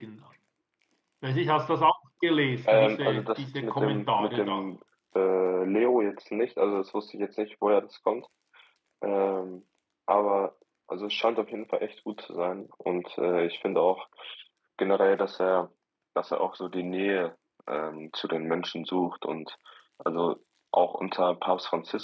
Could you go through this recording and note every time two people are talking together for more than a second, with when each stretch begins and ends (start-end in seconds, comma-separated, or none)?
2.6-4.6